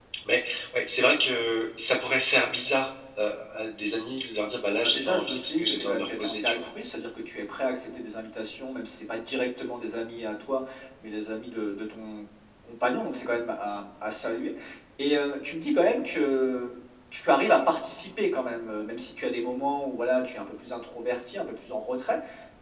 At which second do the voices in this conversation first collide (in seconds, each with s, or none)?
4.7 s